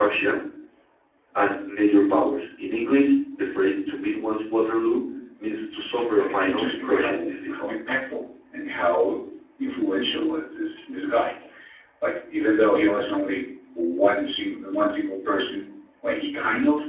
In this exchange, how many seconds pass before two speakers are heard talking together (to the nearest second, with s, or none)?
6 s